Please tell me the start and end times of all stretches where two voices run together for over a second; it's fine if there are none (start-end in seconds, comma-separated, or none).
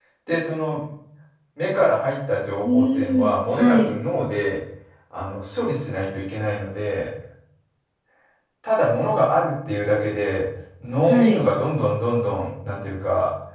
2.6-3.9